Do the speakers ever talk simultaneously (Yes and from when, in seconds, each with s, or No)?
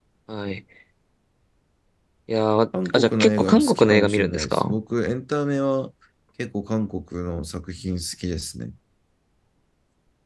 Yes, from 2.8 s